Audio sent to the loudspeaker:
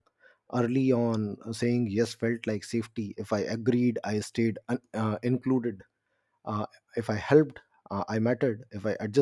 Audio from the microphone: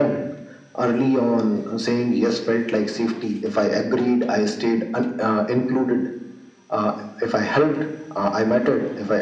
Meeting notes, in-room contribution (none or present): none